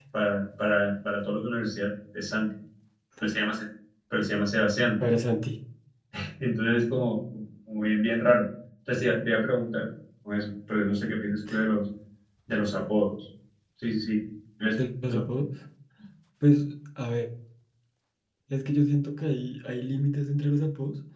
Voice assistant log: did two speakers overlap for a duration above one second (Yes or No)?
No